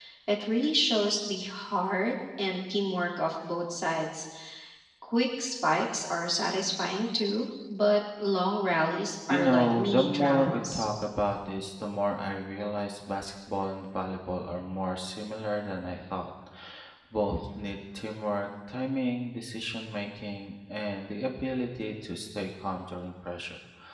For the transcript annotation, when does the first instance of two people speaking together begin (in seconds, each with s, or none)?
9.3 s